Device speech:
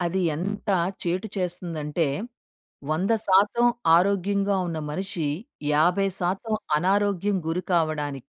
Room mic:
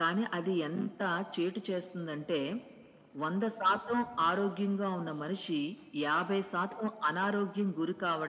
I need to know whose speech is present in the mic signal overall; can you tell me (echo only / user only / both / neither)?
echo only